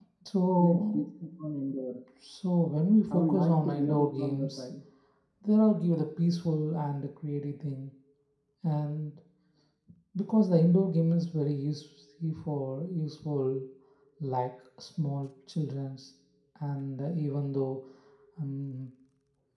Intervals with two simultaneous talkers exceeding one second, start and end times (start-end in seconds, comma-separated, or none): 3.1-4.6